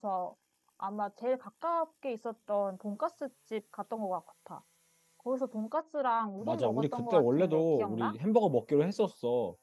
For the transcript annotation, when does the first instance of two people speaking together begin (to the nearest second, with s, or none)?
6 s